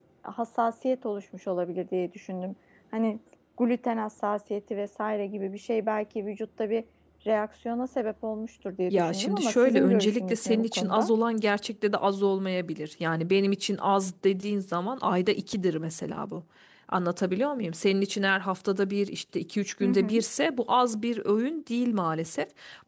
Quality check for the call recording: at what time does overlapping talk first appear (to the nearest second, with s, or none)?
9 s